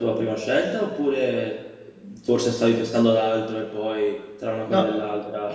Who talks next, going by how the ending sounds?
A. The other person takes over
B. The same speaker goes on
A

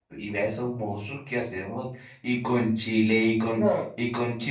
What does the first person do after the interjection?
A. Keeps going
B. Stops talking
A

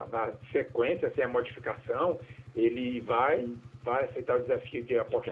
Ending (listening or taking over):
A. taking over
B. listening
B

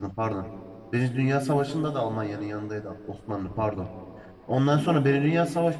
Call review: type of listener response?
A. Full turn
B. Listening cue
B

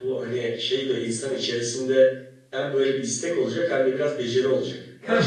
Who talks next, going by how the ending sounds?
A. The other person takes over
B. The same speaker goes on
A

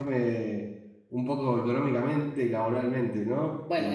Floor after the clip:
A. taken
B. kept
A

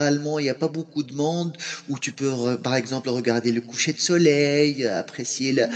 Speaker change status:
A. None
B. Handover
A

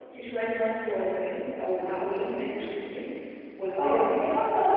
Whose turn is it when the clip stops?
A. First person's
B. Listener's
B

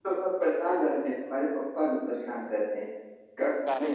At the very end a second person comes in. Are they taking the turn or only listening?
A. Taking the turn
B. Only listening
B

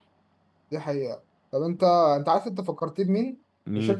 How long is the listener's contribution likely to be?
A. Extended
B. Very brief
B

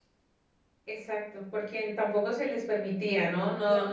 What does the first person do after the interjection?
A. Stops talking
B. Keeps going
B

